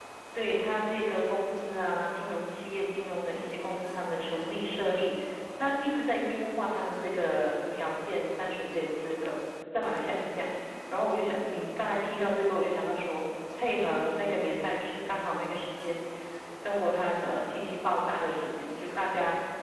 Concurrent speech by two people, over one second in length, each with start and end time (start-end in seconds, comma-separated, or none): none